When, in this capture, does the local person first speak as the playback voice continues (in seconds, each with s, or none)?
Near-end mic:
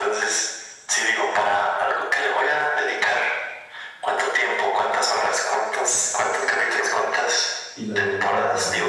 7.7 s